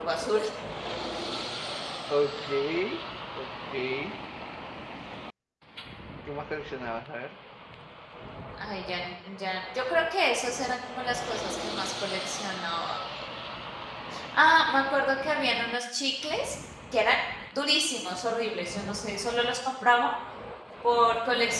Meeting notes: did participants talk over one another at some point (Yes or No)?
No